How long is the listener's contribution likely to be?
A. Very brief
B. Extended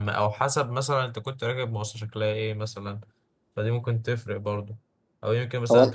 A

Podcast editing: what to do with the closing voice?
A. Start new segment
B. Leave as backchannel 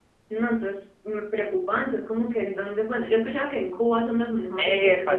A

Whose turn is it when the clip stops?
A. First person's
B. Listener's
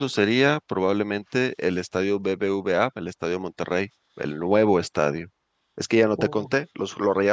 A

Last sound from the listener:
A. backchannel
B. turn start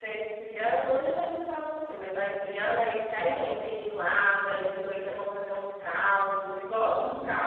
B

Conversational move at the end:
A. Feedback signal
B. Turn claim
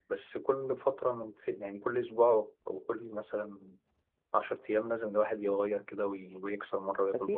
B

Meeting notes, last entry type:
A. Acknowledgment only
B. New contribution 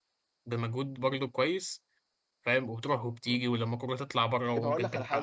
B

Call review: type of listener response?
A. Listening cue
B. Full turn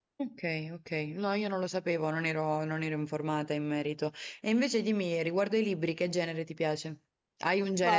B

